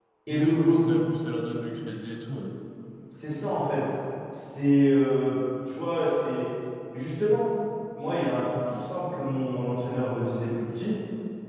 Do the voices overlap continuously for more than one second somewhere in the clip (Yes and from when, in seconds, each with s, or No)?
No